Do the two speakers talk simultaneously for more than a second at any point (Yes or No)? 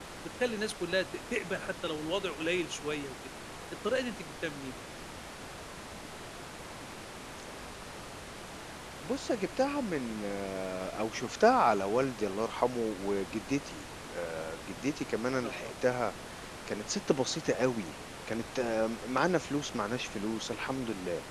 No